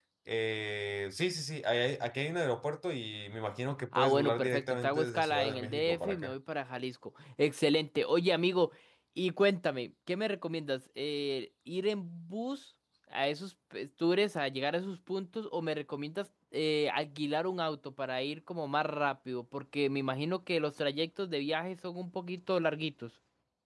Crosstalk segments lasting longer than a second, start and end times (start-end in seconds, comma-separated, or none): 4.0-6.3